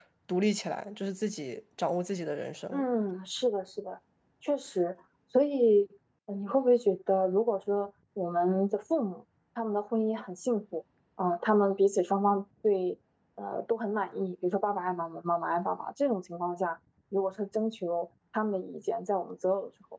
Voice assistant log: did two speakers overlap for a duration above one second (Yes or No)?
No